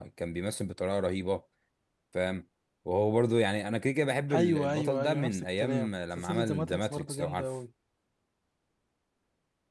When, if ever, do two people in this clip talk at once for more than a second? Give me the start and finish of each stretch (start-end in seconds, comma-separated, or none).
4.3-7.5